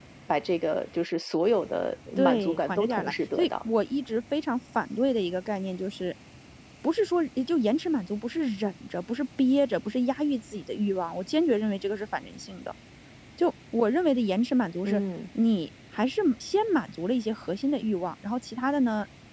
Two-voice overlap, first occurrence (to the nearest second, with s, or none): 2 s